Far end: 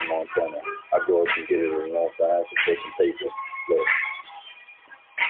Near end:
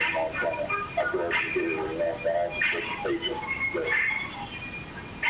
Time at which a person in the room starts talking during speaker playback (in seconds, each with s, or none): none